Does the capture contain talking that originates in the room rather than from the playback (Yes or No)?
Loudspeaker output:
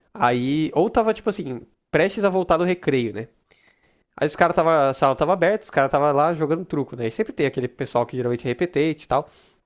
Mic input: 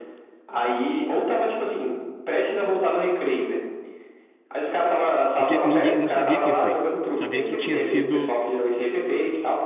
Yes